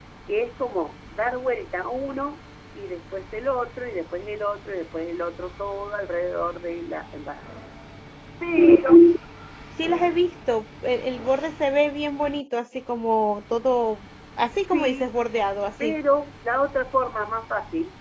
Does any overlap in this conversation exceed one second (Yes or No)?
No